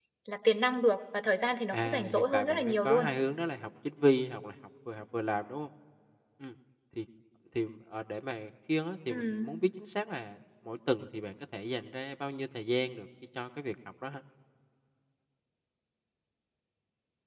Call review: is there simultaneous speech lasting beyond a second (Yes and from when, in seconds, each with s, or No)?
Yes, from 1.7 s